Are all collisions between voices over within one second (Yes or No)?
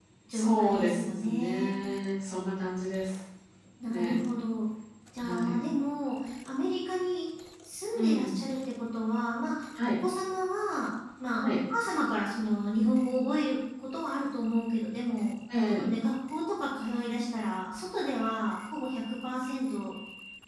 No